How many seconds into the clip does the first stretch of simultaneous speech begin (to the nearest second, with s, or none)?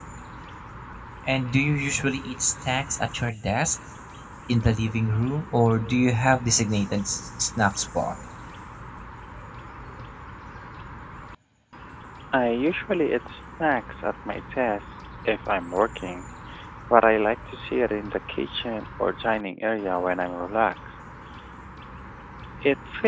none